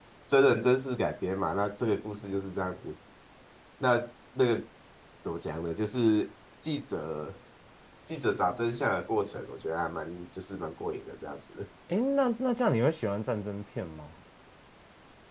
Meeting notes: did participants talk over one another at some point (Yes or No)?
No